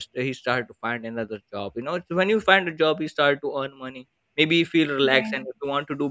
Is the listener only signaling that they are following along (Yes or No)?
Yes